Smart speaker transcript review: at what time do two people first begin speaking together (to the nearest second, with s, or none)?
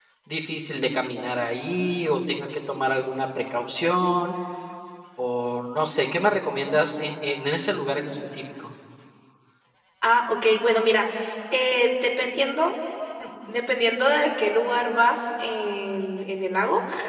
none